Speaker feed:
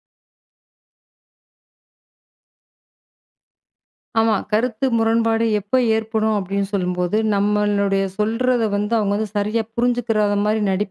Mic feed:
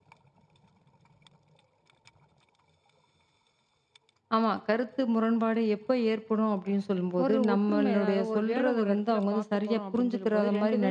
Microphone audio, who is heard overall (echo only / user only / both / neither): both